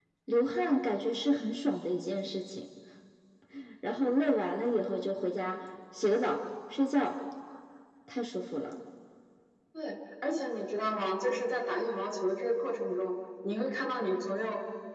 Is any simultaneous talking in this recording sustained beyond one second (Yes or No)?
No